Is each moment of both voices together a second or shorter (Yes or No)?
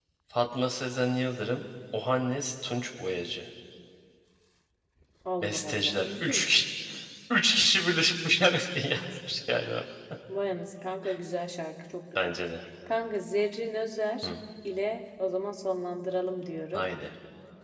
No